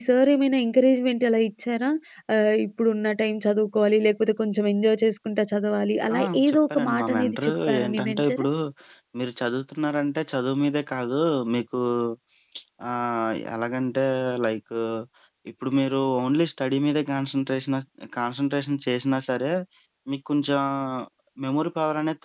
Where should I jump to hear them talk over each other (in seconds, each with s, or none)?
6.1 s